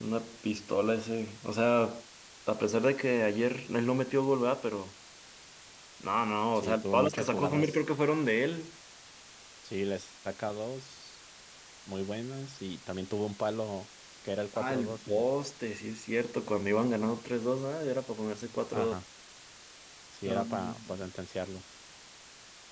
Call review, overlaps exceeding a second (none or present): present